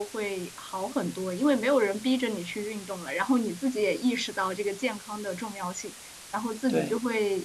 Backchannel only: Yes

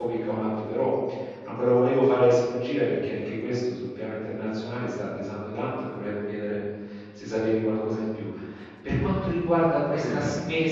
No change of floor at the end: Yes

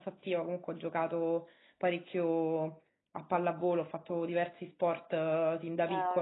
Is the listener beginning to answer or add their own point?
No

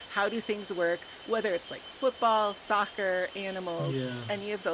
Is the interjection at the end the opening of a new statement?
No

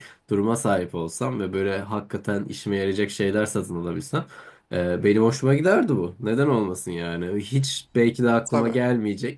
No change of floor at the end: Yes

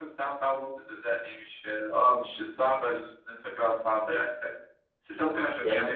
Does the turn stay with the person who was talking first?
Yes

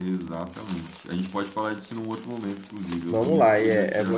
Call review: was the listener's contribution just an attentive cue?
No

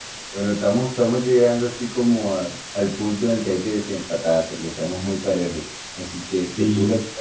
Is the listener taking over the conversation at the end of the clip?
No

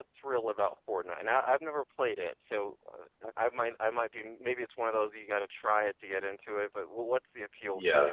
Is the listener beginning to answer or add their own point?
Yes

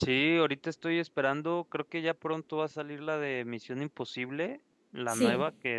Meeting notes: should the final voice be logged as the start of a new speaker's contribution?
No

